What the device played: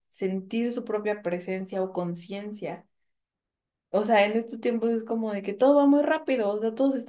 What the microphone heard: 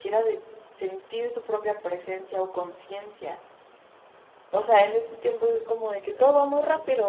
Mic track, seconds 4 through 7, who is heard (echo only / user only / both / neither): both